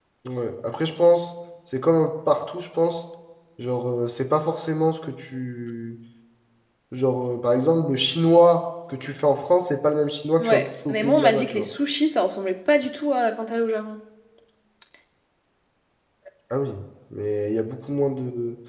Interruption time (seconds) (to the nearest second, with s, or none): 10 s